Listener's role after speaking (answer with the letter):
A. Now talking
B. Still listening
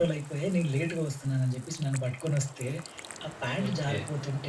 B